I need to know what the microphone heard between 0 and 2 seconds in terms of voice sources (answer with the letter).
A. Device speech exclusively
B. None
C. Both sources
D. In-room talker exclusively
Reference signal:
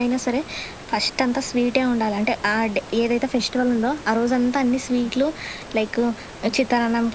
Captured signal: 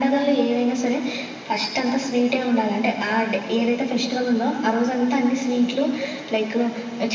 A